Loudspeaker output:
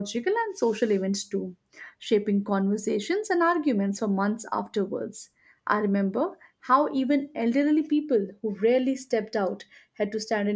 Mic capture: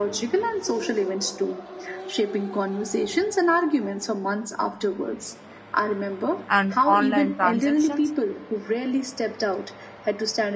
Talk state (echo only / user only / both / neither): both